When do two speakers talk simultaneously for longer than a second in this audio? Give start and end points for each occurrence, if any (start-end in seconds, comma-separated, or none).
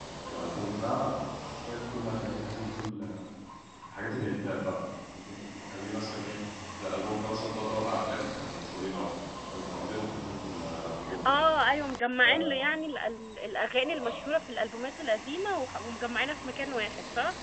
none